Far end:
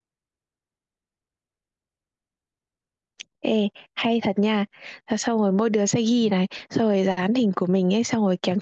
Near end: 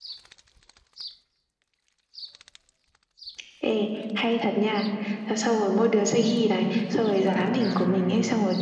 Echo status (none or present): present